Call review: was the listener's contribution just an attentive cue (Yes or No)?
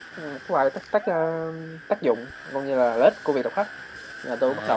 No